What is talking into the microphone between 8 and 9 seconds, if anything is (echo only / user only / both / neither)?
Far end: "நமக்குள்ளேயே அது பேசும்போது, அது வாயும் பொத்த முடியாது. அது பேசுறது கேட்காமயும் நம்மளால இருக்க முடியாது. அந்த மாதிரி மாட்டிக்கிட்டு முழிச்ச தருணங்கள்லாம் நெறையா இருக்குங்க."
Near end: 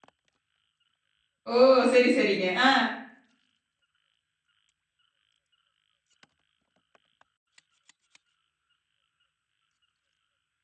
neither